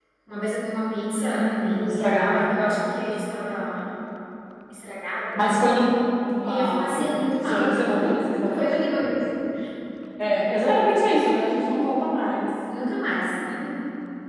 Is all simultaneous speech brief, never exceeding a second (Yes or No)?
No